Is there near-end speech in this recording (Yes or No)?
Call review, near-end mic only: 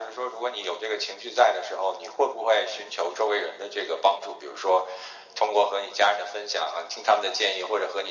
No